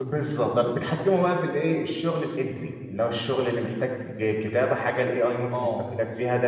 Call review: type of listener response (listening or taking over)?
taking over